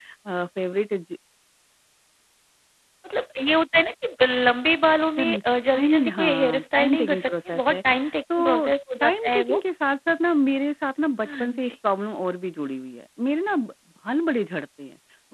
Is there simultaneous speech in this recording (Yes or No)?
Yes